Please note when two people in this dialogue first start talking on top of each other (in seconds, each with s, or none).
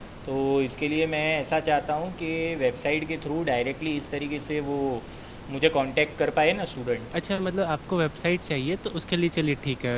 none